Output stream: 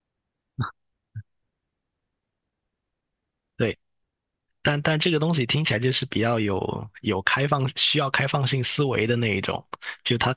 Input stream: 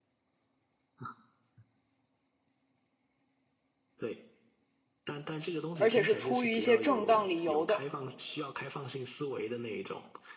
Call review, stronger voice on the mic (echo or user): user